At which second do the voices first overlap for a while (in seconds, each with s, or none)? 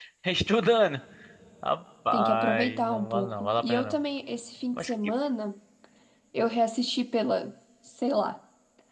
2.1 s